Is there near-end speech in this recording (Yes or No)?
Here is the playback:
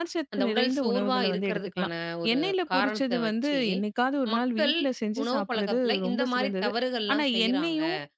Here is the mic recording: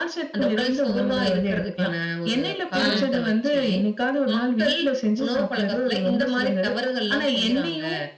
Yes